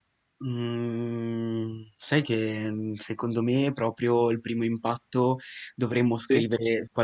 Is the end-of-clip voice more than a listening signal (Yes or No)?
No